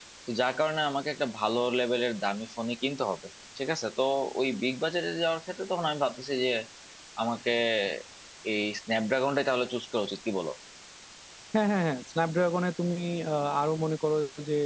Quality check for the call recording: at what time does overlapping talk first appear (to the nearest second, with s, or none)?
none